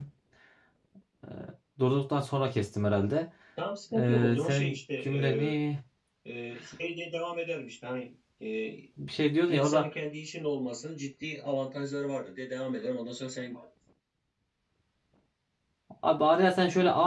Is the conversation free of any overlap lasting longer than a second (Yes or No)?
No